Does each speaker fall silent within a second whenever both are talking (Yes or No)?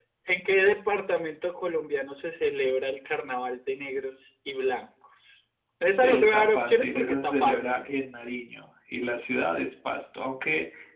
No